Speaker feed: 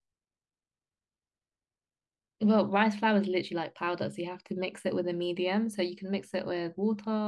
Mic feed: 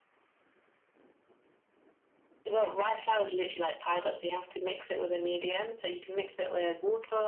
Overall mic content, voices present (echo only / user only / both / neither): echo only